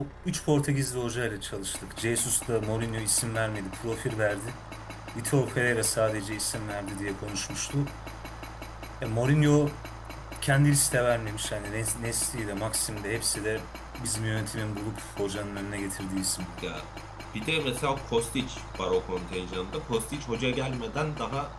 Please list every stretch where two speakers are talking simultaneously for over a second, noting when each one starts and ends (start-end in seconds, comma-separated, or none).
none